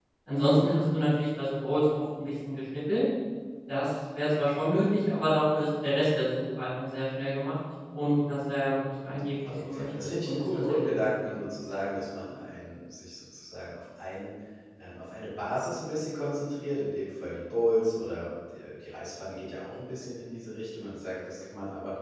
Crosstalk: present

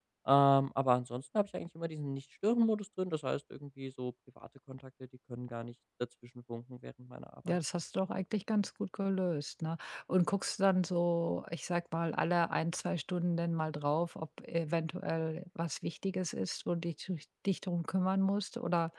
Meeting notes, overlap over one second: none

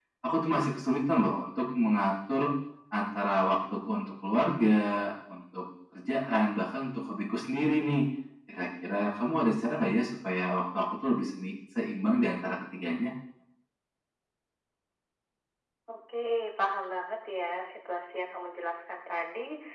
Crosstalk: none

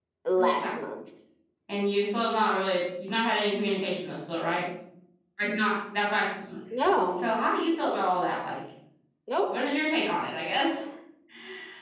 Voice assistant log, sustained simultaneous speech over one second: none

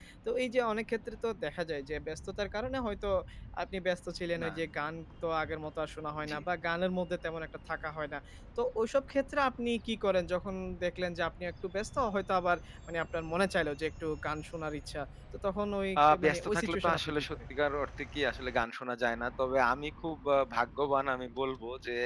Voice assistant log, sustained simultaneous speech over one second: present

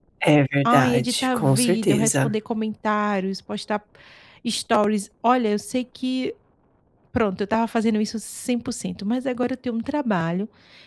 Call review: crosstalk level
present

